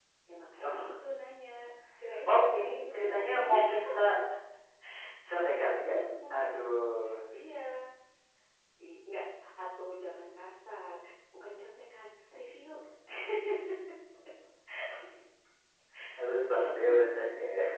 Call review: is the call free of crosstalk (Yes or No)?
No